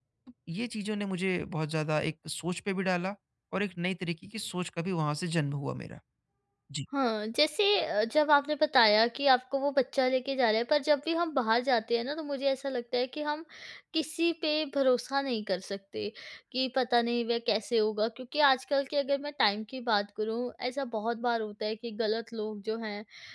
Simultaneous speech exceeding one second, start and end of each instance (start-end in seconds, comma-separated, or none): none